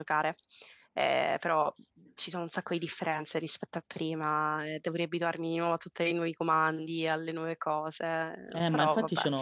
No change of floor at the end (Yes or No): No